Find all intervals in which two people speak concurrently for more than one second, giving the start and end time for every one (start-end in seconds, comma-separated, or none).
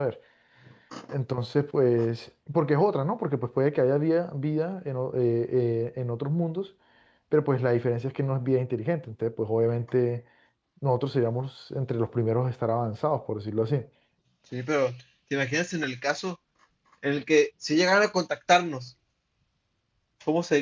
none